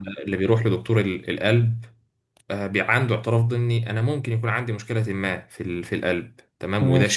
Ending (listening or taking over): listening